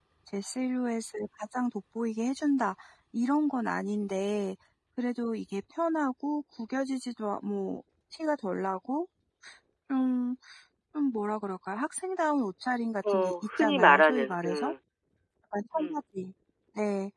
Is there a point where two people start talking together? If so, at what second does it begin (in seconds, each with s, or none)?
13.0 s